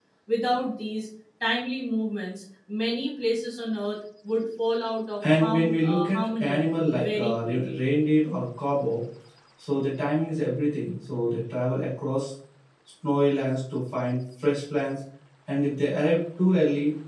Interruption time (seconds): 5.2 s

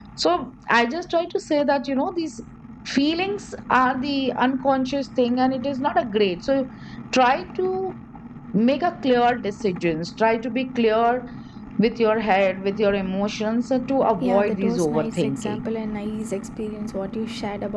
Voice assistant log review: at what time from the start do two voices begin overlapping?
14.2 s

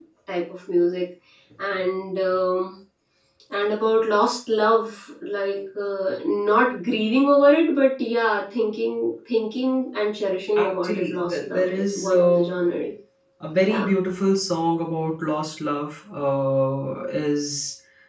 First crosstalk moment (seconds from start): 10.6 s

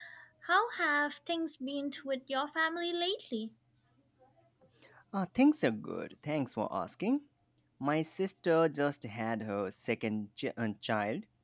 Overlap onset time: none

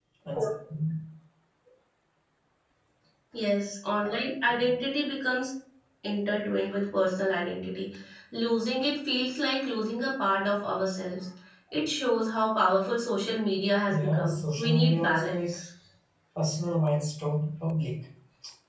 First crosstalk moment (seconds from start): 13.9 s

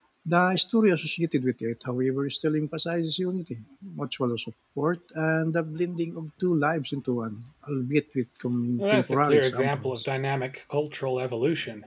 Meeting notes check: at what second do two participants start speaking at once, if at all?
8.8 s

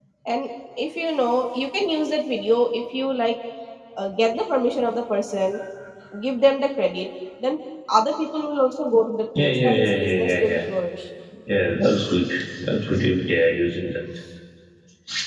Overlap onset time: 9.4 s

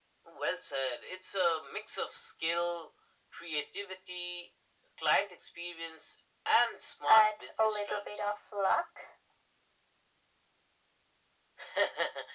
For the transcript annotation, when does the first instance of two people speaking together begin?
7.0 s

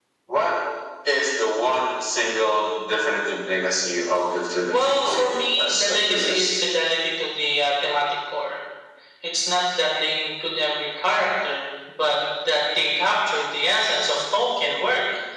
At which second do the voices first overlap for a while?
4.7 s

